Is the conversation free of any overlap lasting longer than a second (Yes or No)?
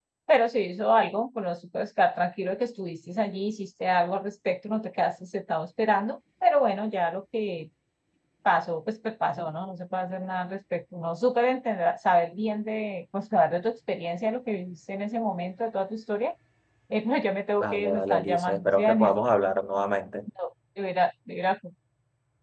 No